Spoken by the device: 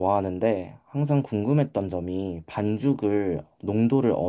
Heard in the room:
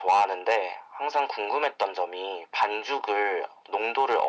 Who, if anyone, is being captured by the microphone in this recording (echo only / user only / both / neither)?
echo only